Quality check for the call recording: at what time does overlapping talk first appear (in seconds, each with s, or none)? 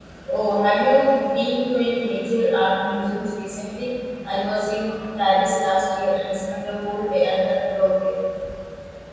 none